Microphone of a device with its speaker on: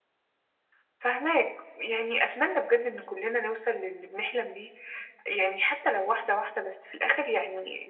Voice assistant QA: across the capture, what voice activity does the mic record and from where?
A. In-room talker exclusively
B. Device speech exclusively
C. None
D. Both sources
B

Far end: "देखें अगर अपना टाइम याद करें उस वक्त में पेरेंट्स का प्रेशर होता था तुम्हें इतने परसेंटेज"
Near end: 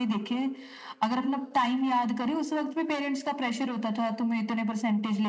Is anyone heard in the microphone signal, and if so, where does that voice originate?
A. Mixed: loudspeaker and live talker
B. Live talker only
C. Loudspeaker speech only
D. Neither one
C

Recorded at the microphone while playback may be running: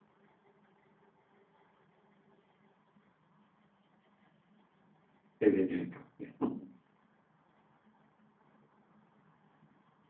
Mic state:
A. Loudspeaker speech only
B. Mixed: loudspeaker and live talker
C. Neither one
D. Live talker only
D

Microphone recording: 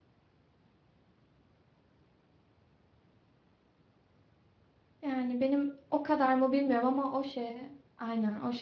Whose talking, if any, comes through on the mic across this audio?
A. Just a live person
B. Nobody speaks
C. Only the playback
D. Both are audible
A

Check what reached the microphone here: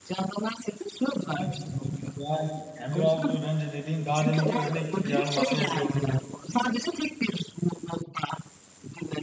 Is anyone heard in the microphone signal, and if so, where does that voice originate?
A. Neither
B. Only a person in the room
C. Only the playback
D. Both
D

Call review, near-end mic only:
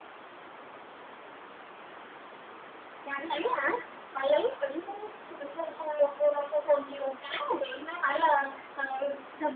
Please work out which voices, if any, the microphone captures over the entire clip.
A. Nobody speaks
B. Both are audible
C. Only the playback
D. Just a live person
C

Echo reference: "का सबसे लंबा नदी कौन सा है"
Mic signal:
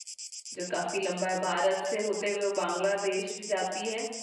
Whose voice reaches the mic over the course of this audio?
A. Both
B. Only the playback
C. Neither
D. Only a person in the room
D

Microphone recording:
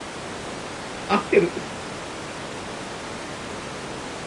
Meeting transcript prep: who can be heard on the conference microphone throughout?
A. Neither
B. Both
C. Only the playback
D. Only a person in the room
D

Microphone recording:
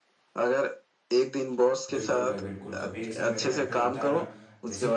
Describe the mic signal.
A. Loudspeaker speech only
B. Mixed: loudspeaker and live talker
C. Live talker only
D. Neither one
B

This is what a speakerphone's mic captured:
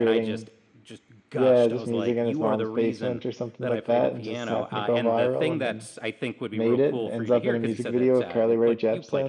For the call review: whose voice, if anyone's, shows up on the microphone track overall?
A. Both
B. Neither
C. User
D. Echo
D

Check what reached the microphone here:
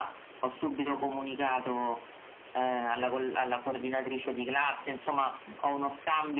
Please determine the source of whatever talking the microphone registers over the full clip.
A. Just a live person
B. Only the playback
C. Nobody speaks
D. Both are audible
B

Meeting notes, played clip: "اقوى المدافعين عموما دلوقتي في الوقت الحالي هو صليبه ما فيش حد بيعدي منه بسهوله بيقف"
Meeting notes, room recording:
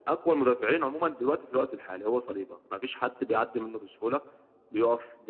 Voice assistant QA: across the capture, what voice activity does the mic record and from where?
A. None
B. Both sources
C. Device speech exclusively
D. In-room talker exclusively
C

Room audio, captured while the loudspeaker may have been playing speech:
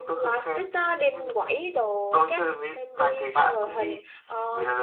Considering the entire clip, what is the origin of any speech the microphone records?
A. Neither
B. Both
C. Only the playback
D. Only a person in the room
B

